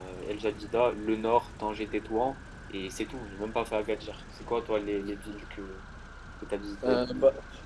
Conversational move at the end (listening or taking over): taking over